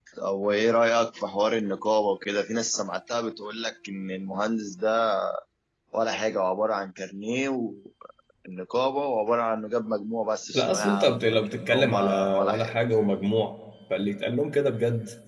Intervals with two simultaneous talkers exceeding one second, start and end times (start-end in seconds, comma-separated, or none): 10.5-12.7